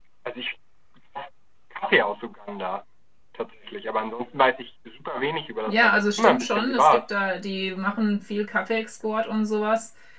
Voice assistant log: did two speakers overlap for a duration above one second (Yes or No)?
Yes